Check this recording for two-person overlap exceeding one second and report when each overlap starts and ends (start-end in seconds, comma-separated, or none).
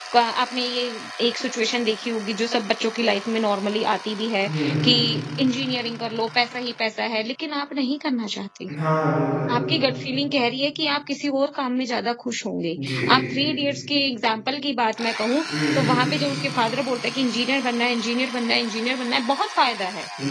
none